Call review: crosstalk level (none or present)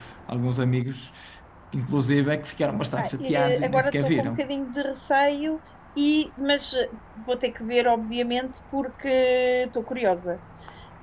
present